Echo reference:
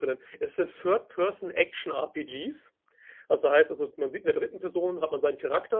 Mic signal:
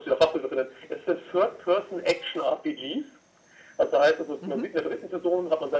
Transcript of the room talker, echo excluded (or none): Mhm.